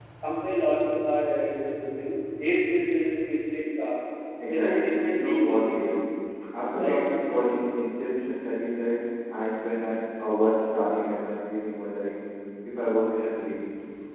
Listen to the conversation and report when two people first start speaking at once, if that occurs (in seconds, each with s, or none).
4.5 s